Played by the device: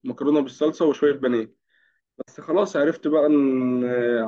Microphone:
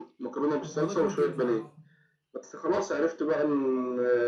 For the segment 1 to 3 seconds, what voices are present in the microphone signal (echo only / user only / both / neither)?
both